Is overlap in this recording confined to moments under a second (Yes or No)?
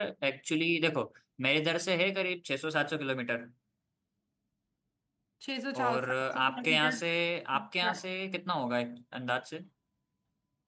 No